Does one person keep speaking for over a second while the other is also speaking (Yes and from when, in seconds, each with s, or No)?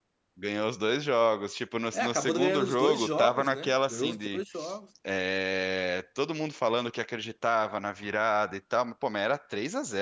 Yes, from 1.9 s